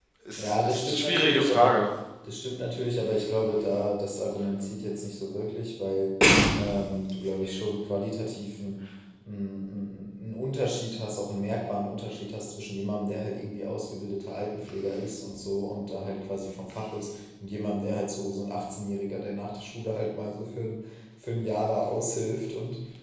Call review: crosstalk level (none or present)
present